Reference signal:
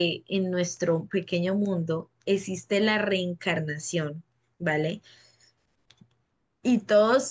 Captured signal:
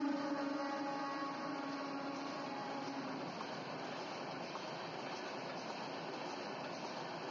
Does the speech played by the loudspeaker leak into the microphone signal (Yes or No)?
No